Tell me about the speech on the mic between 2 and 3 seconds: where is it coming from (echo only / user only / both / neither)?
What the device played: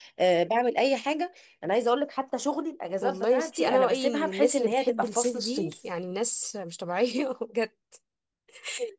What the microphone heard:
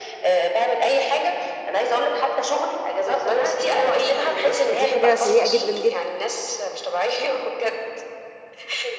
echo only